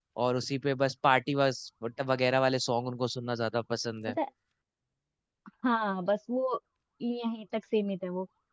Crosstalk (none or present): none